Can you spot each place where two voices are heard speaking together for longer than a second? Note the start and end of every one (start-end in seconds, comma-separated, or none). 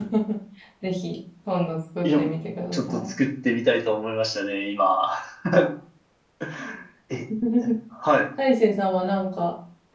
none